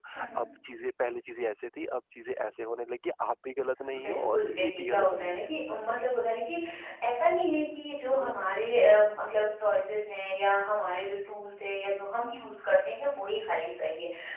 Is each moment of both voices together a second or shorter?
No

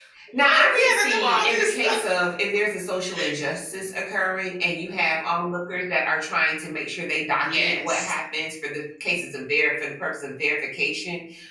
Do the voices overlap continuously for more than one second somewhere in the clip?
Yes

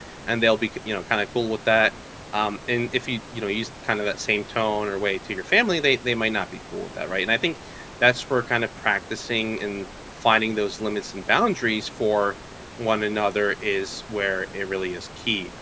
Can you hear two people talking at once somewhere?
No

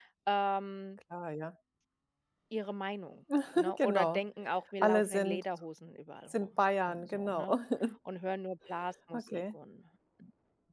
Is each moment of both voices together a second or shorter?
No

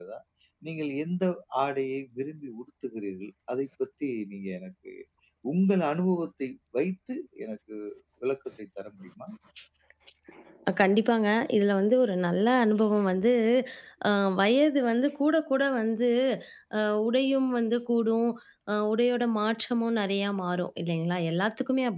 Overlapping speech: No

